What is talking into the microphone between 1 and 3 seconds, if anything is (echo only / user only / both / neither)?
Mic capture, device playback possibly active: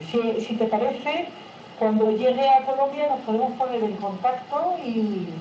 echo only